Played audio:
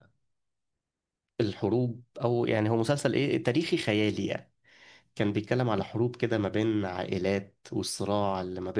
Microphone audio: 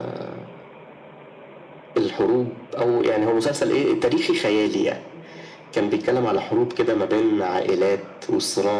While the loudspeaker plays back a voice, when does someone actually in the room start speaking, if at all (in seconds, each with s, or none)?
none